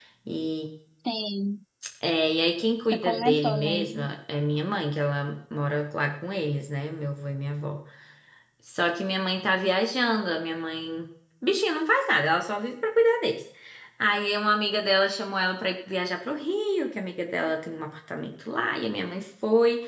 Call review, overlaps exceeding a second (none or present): present